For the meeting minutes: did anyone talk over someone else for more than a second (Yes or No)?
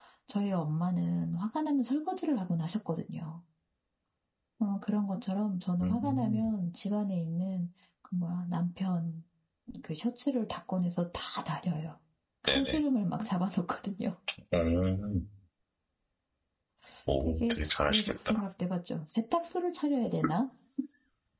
Yes